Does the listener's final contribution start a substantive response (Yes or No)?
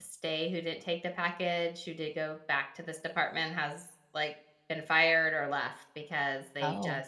No